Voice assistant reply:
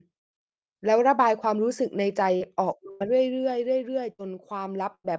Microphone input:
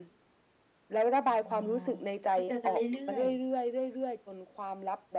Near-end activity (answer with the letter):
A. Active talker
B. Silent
A